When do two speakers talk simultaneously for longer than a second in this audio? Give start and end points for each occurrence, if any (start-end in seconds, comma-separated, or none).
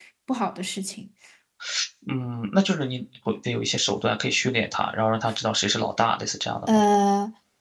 none